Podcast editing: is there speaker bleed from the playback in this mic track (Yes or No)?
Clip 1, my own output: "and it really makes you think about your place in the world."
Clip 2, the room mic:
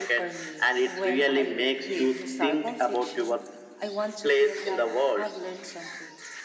Yes